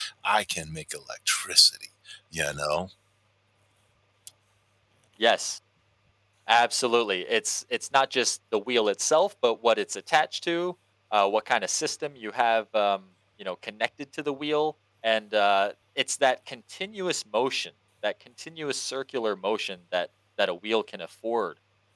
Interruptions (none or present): none